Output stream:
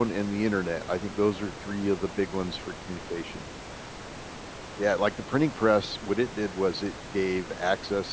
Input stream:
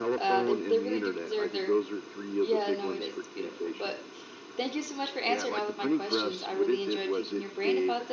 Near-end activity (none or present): present